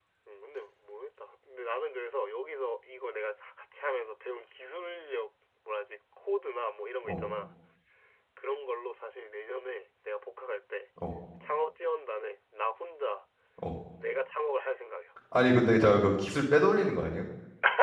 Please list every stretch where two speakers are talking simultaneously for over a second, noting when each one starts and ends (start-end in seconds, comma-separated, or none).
none